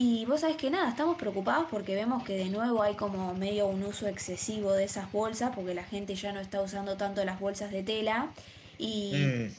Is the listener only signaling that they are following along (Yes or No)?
Yes